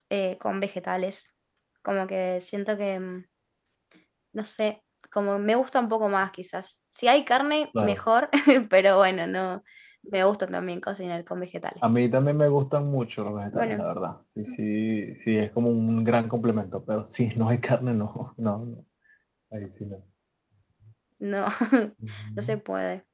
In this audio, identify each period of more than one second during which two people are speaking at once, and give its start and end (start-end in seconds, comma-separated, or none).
none